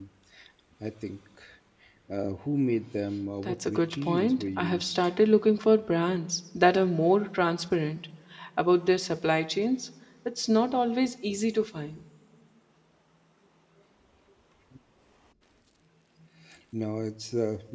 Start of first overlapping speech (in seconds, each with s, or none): 3.4 s